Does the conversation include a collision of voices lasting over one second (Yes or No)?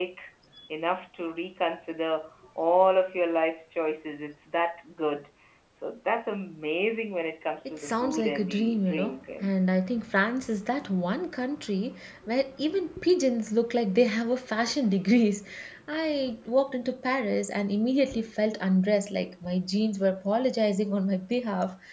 Yes